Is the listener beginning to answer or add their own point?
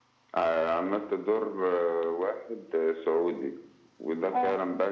No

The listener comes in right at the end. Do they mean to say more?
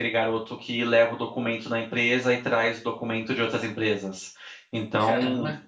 No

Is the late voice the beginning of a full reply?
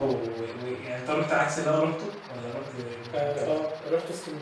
Yes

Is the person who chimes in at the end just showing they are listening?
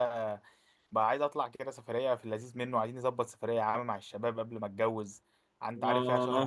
No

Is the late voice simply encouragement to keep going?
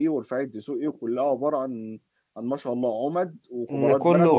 No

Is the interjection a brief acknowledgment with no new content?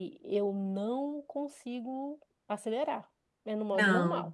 No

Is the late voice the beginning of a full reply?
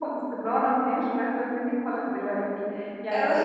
No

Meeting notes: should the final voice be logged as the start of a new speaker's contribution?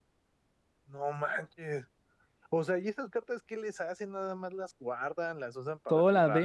Yes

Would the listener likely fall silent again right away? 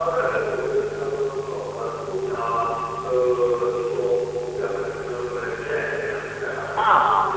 No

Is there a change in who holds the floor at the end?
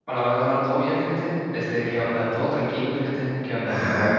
Yes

